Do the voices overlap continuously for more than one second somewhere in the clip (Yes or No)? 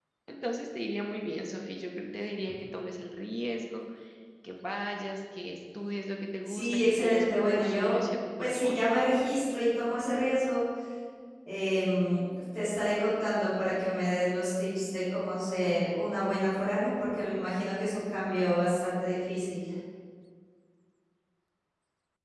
Yes